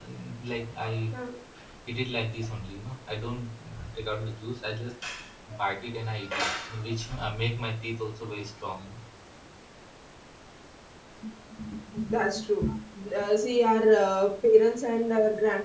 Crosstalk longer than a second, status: none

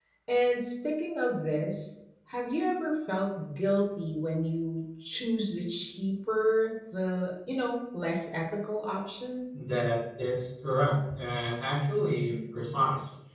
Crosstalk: none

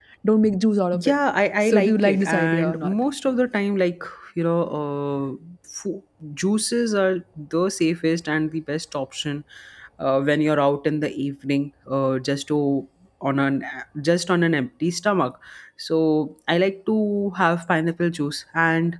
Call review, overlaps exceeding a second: present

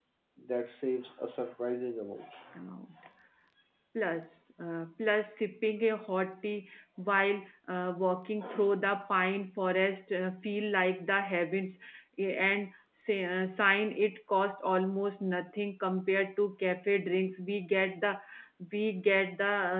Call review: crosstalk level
none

